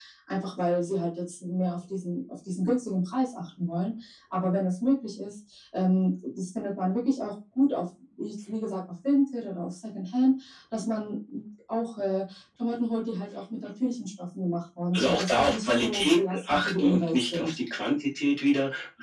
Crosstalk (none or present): present